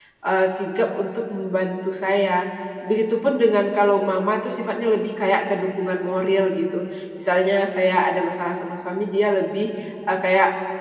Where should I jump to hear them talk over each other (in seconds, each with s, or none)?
none